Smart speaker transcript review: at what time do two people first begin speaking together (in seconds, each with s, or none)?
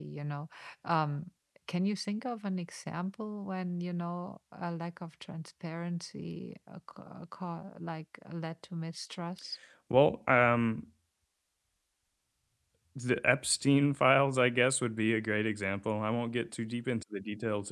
none